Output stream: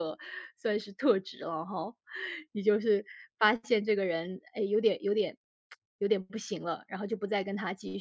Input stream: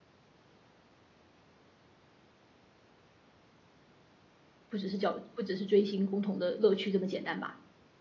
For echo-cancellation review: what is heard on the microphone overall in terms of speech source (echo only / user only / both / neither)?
user only